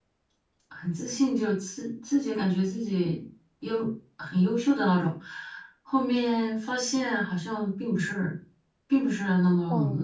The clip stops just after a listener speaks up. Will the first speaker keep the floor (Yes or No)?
No